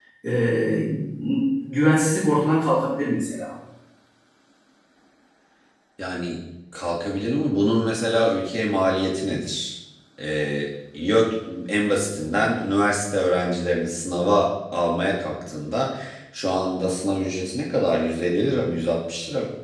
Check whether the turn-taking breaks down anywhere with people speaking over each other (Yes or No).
No